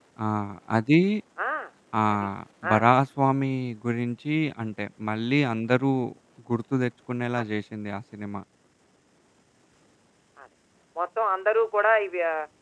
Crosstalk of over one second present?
No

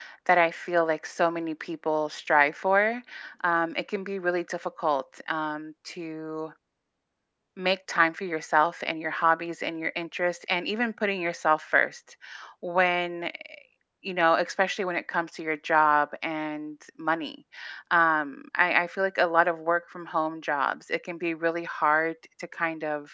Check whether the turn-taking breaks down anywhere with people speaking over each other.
No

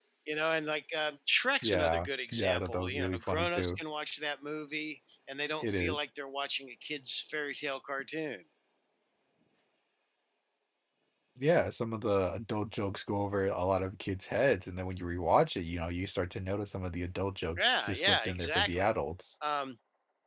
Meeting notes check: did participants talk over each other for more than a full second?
Yes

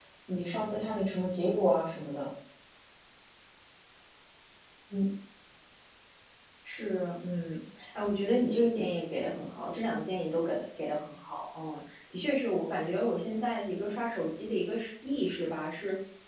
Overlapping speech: No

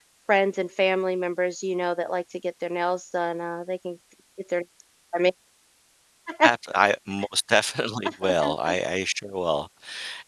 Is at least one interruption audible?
No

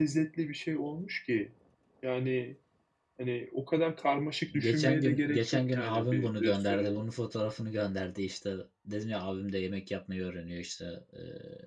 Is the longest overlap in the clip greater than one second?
Yes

